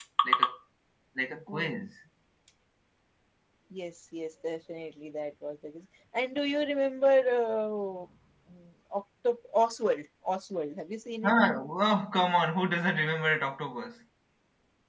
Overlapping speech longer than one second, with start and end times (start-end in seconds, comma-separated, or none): none